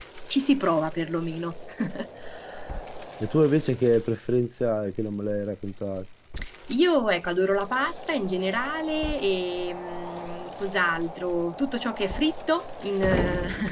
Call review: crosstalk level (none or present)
none